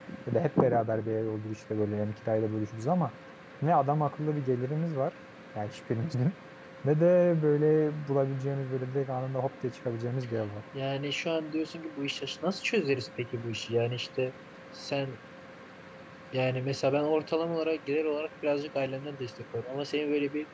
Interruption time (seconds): none

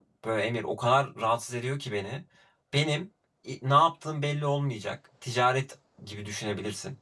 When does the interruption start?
none

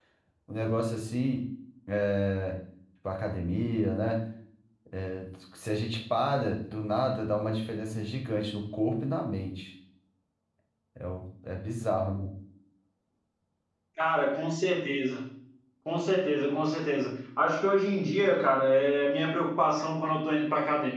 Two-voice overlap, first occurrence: none

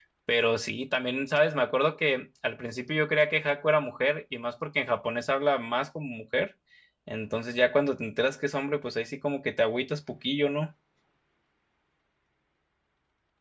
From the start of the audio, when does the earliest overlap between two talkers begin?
none

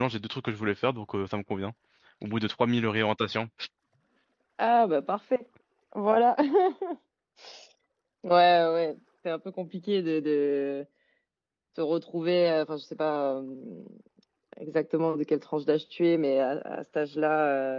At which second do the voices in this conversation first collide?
none

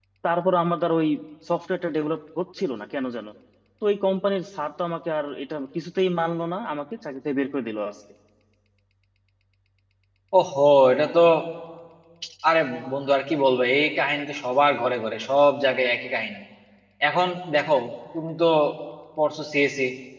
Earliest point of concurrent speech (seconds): none

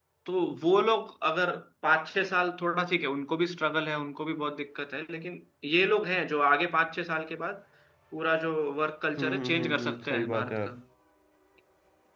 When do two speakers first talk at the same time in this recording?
9.2 s

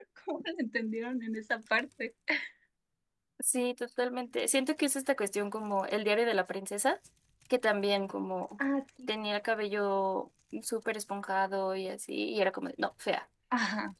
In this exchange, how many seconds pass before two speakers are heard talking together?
none

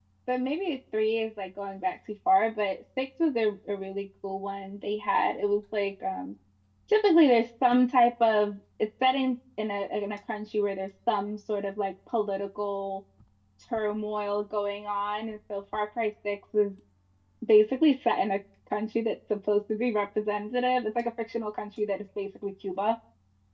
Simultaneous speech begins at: none

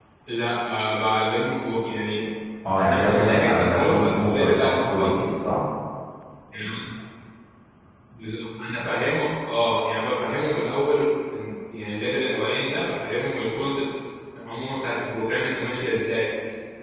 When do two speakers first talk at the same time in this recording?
2.8 s

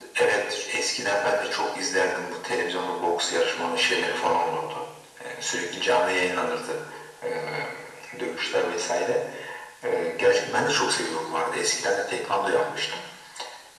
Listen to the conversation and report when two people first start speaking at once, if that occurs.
none

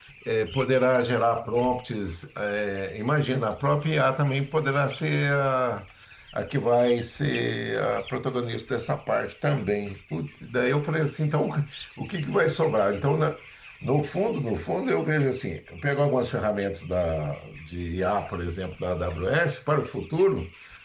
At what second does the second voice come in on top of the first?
none

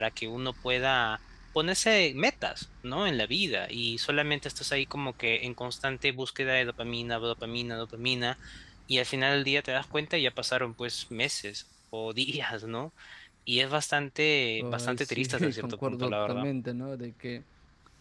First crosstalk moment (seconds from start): 14.6 s

